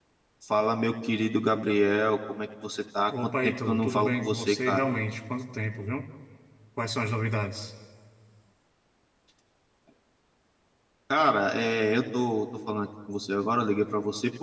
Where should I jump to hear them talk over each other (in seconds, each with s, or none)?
3.1 s